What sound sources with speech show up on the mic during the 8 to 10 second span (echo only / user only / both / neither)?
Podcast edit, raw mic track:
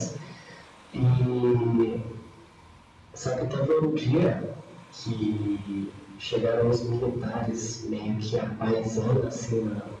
echo only